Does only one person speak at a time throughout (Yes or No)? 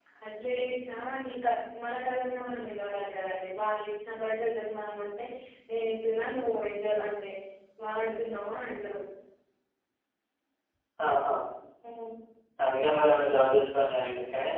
Yes